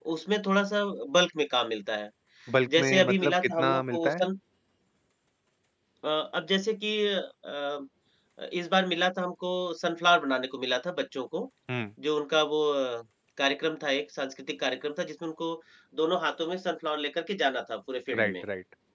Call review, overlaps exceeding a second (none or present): present